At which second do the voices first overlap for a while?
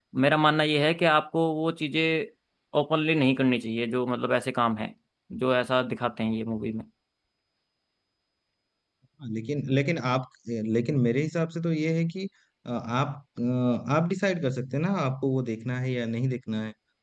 none

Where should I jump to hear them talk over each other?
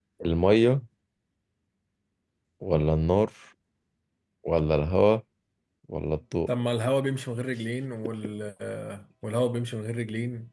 none

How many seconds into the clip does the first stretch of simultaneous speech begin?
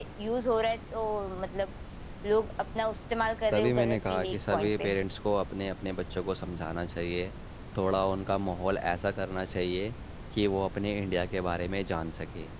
3.5 s

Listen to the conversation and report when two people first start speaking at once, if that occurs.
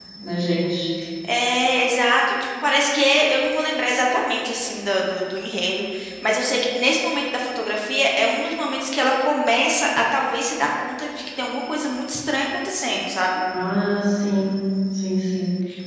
none

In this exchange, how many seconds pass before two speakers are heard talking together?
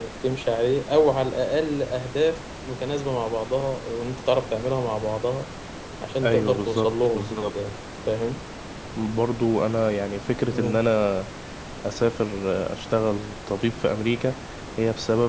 6.2 s

